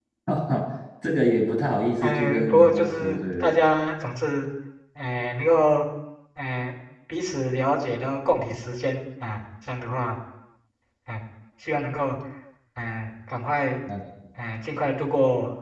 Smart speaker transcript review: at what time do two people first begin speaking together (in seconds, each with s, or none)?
2.0 s